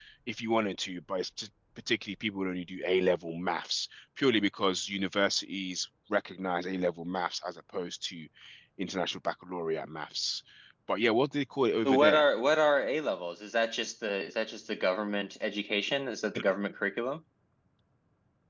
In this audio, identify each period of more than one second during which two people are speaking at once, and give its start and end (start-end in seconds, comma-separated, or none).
none